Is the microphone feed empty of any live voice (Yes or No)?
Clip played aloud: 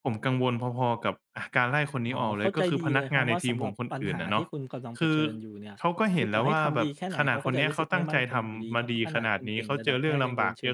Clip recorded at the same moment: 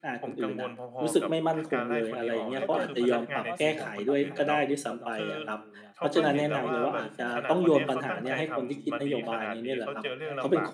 No